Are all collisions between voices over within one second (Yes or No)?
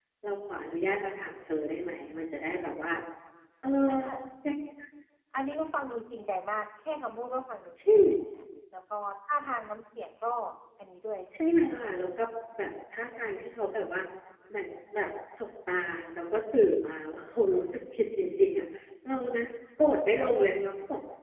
Yes